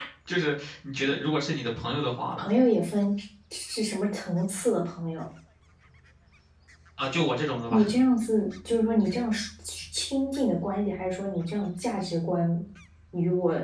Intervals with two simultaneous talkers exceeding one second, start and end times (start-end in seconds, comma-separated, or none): none